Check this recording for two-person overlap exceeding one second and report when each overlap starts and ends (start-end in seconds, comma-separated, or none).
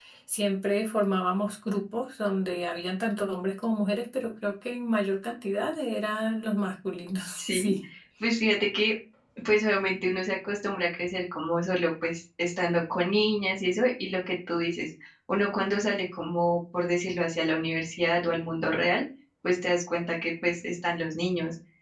none